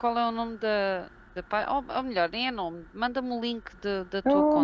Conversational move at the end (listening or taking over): taking over